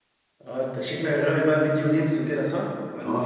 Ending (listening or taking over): taking over